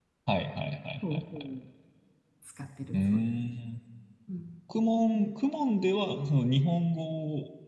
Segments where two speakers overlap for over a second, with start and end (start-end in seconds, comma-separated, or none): none